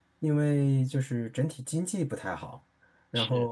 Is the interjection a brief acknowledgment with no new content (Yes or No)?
Yes